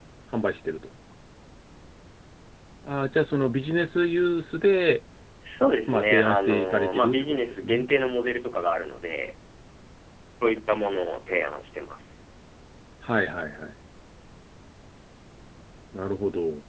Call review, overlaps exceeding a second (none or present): present